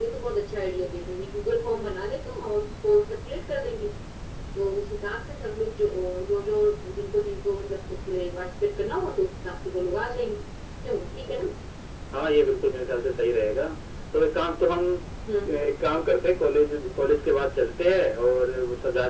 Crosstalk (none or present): none